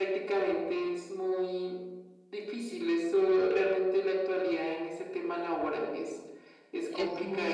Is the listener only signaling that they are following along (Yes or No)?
No